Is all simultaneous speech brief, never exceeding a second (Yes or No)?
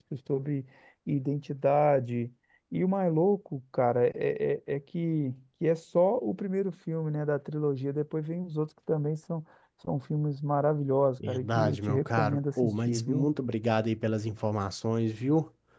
No